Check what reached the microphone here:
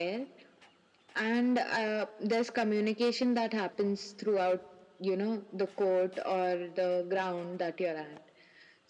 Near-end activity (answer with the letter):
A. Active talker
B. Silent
B